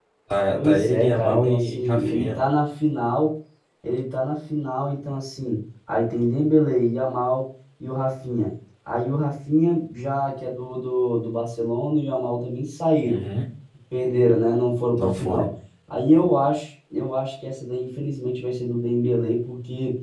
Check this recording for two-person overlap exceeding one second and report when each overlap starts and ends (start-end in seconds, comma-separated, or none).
0.5-2.4